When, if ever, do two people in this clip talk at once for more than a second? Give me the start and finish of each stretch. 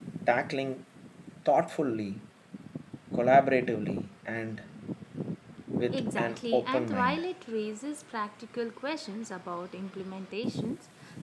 5.9-7.2

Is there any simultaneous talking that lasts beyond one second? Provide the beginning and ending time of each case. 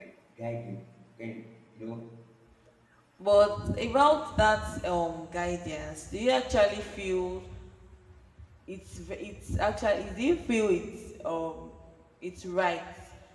none

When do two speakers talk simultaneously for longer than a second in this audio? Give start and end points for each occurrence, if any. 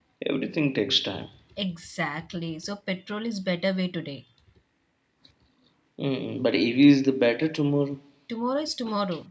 none

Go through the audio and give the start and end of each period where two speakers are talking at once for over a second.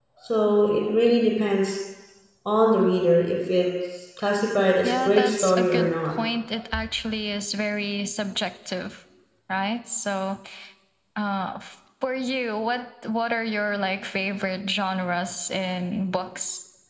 4.8-6.2

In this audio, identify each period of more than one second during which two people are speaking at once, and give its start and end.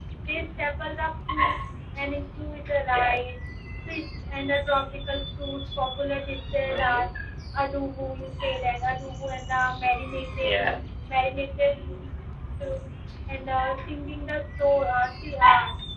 none

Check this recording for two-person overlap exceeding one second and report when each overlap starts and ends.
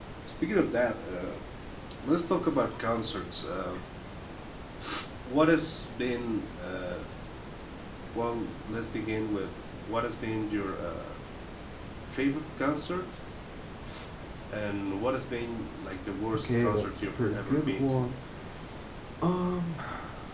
16.4-18.1

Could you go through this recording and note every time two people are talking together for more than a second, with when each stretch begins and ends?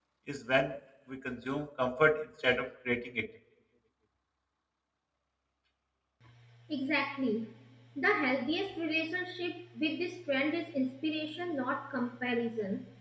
none

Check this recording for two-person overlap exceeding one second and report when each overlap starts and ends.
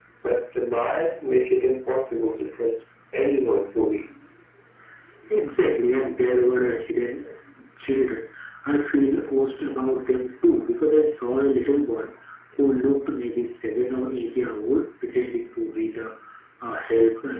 none

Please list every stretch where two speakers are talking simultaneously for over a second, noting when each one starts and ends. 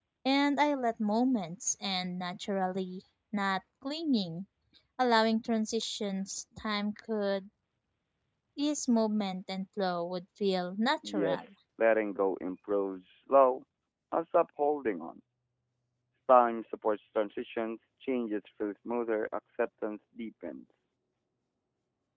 none

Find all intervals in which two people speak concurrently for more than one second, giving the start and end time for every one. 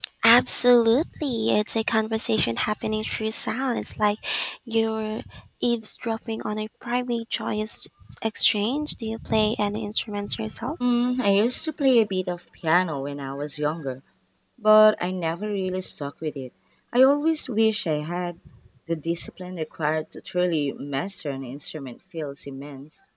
none

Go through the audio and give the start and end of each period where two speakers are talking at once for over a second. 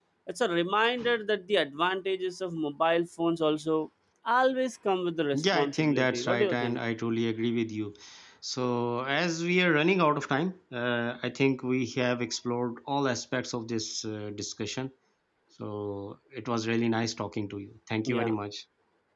5.3-6.8

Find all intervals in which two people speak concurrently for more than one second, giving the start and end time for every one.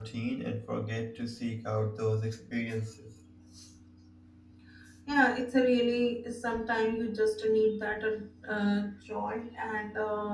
none

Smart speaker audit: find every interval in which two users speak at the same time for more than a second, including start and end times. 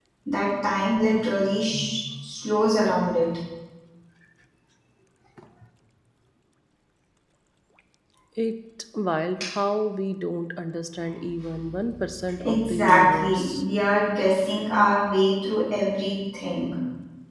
12.4-13.6

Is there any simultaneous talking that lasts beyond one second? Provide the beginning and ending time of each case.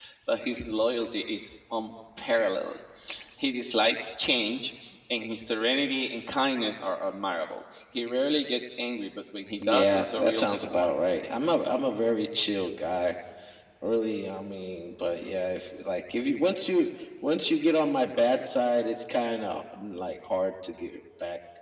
9.6-10.9

